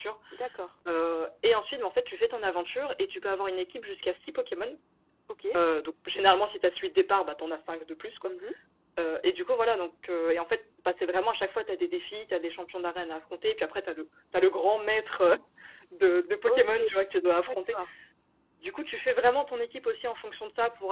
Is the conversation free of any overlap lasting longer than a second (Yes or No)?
Yes